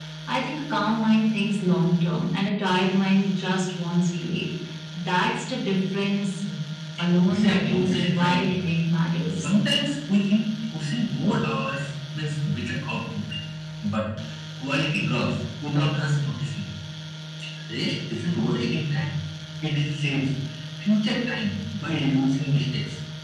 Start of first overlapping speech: 7.3 s

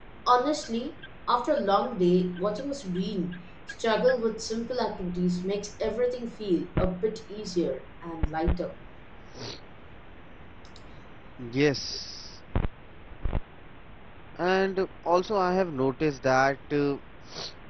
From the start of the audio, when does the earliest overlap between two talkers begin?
none

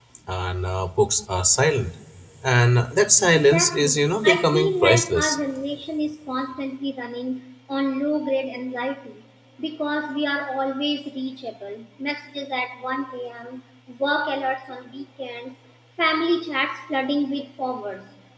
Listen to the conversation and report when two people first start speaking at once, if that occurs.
3.3 s

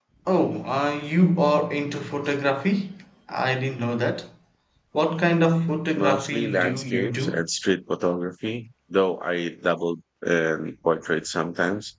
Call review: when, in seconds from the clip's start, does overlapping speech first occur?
6.0 s

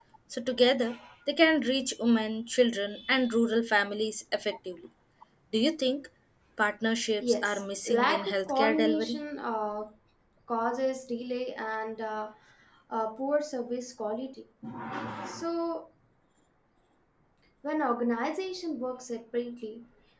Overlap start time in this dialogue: 7.2 s

